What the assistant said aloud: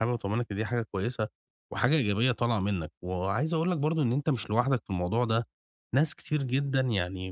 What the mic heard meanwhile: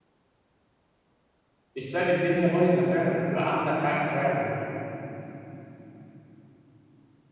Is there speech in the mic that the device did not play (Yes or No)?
Yes